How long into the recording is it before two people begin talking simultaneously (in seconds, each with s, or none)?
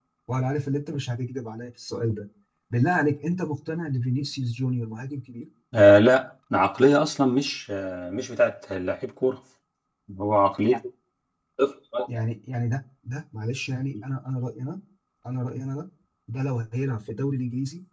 none